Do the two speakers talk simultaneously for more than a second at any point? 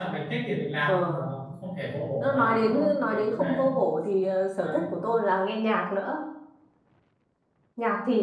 Yes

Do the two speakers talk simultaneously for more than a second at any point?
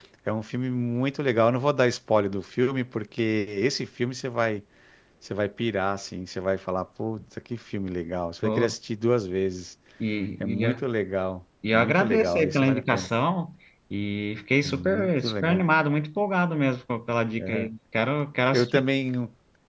Yes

